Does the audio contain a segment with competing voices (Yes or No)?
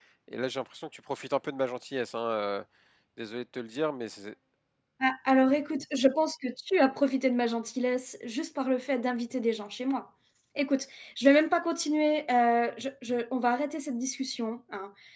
No